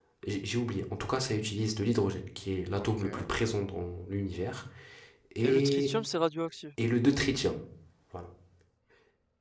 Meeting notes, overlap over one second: none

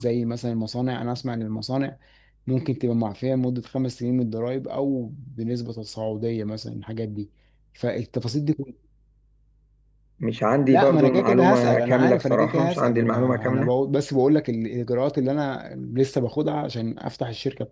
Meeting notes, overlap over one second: present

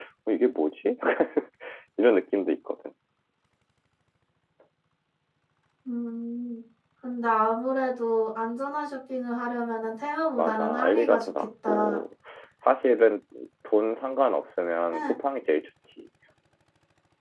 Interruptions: present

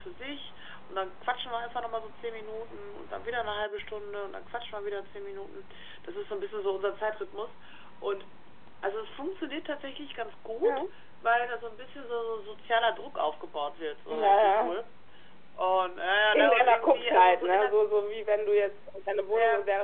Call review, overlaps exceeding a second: present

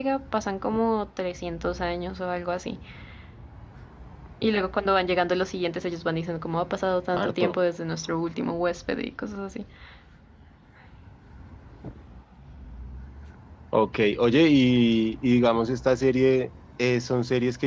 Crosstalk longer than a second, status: none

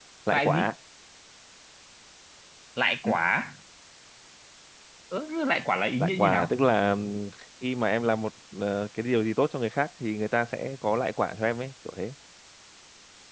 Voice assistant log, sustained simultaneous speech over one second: none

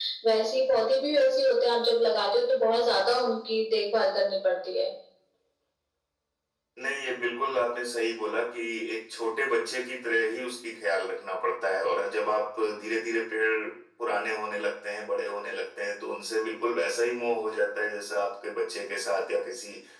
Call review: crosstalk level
none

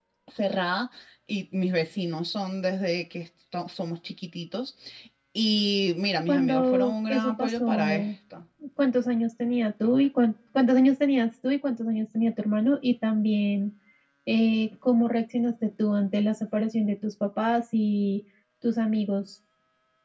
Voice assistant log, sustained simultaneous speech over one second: present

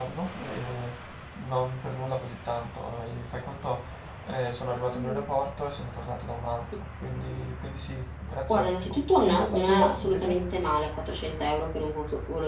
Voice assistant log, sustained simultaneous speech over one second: present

